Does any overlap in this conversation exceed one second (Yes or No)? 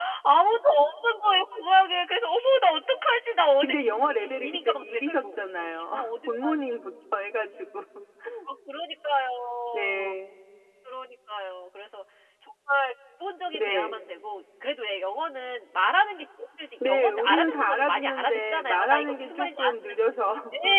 Yes